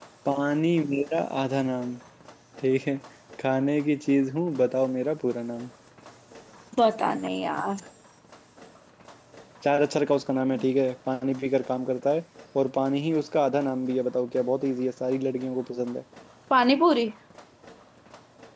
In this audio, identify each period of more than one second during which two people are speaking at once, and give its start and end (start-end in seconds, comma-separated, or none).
none